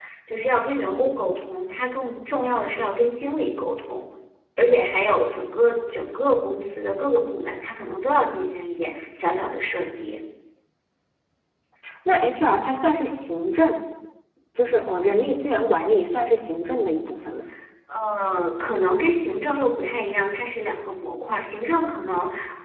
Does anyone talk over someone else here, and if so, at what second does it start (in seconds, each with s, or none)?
none